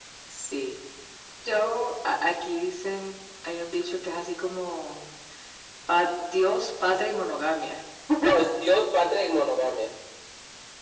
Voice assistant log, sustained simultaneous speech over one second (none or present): none